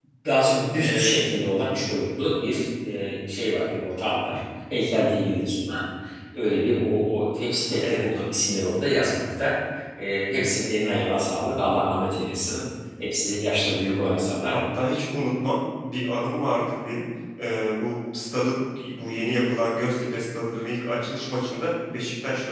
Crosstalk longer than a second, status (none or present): none